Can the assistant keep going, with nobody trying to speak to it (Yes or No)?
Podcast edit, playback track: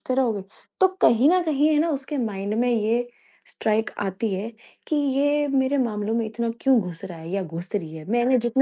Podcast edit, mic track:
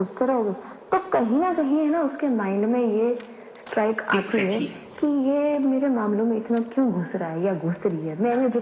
No